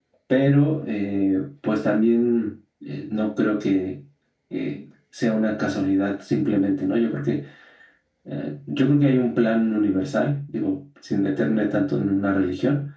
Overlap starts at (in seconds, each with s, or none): none